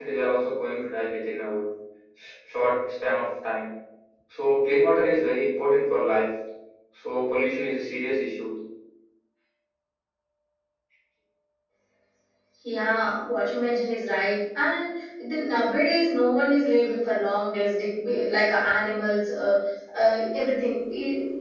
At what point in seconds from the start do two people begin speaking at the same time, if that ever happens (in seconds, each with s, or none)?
none